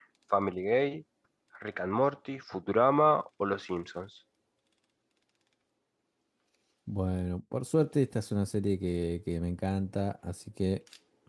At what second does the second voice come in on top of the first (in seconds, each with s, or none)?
none